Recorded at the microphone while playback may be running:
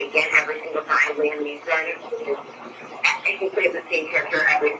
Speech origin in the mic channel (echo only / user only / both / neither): echo only